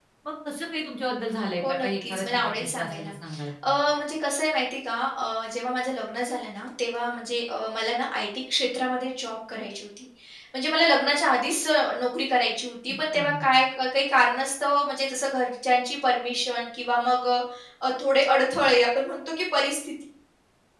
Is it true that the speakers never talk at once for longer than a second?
No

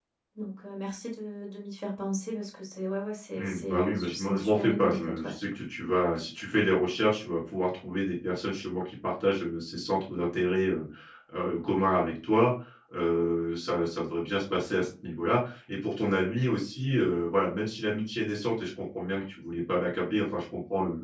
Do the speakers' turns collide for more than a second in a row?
Yes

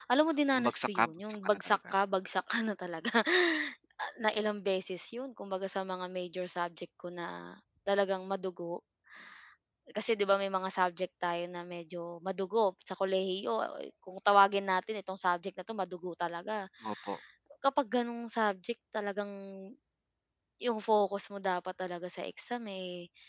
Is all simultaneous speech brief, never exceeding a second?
No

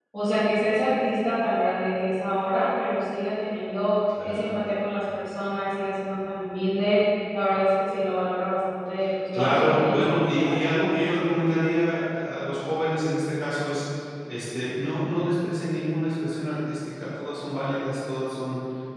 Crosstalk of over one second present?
Yes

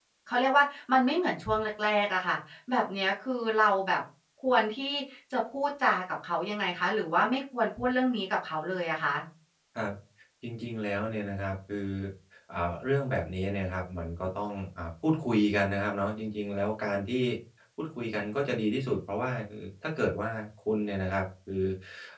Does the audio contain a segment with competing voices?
No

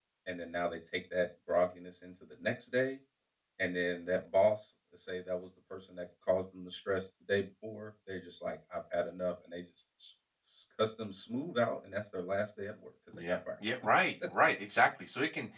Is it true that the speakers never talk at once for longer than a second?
Yes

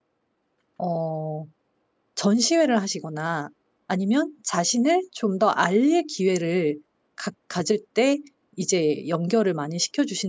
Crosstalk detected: No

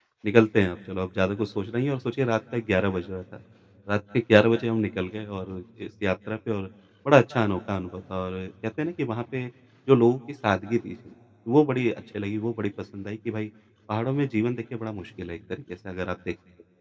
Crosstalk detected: No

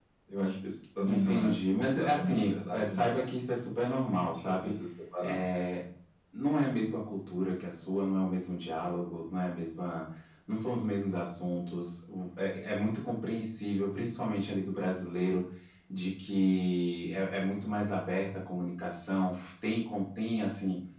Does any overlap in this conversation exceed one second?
Yes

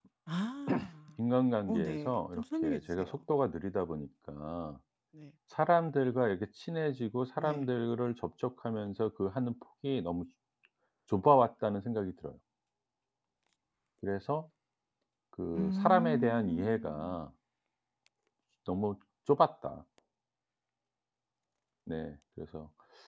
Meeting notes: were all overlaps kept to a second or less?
No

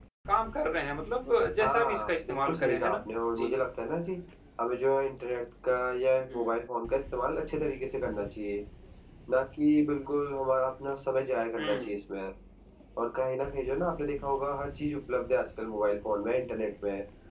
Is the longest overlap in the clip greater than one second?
Yes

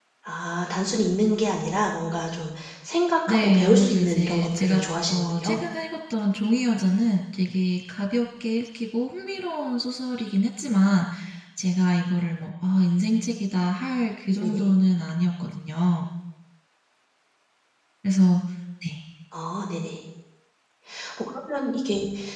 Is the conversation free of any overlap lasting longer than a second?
No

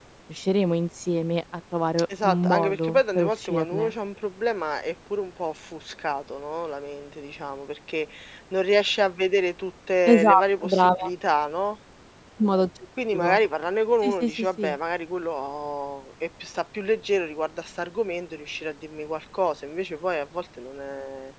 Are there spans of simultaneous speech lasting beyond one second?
Yes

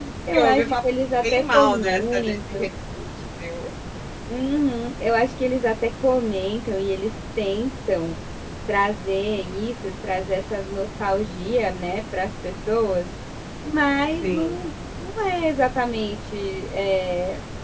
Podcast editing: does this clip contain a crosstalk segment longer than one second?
Yes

